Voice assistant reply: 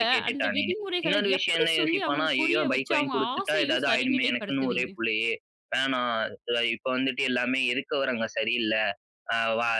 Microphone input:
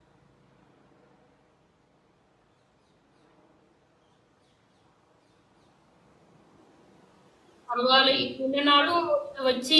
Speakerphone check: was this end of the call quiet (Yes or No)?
No